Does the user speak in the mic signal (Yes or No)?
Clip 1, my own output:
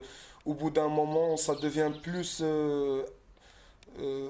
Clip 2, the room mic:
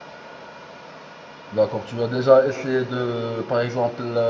Yes